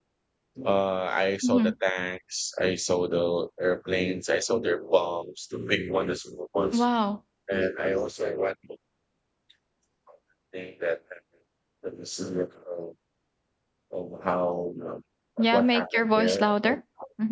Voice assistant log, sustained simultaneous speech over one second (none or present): present